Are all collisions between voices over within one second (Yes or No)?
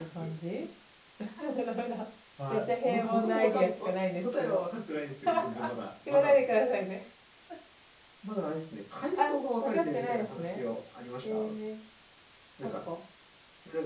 No